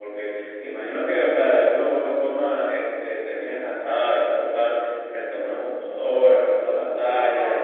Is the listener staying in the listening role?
No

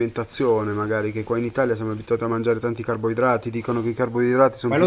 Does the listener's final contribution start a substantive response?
Yes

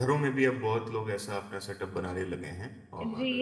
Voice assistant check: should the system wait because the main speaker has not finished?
No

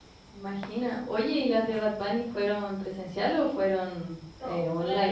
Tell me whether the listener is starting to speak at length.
Yes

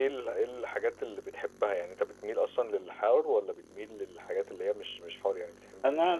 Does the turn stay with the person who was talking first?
No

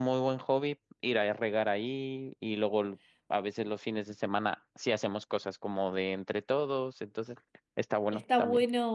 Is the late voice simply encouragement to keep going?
No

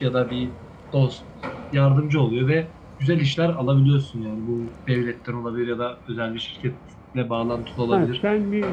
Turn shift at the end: Yes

